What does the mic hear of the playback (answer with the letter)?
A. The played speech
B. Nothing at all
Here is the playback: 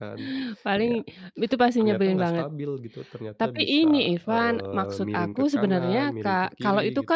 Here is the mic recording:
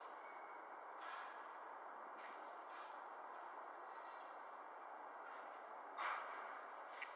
B